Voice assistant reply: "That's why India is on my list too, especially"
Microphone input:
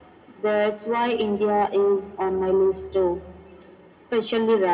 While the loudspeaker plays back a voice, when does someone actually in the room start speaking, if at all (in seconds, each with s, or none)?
none